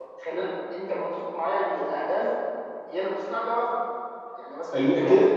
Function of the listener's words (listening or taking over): taking over